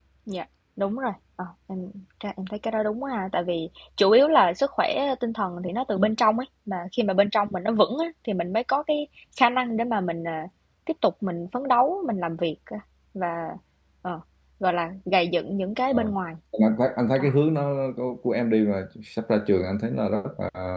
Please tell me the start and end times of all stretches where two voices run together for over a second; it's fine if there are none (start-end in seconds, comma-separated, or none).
none